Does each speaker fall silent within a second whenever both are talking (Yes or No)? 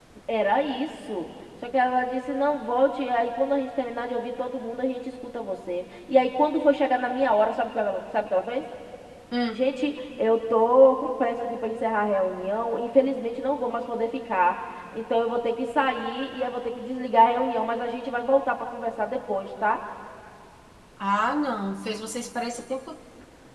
Yes